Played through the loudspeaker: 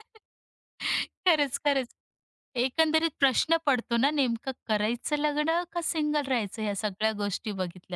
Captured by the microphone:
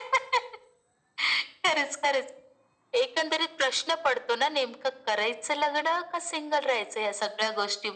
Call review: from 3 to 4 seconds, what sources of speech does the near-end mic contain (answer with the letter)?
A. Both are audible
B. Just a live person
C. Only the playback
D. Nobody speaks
C